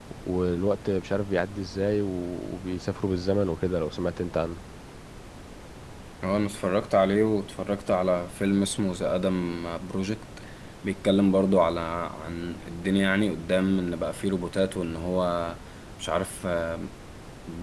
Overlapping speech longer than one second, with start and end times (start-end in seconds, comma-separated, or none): none